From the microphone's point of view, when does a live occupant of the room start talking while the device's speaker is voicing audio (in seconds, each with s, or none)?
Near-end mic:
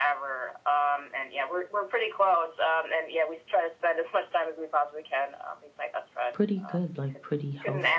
6.3 s